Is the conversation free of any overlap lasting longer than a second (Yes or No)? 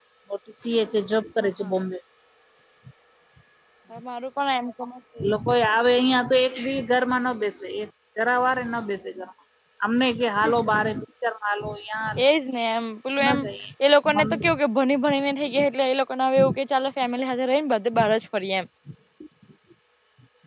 Yes